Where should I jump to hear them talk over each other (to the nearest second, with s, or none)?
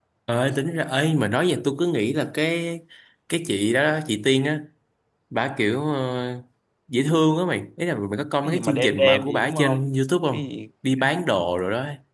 8 s